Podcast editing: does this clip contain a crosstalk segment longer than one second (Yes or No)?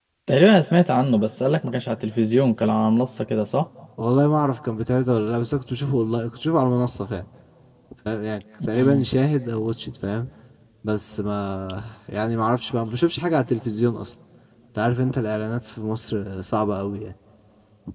No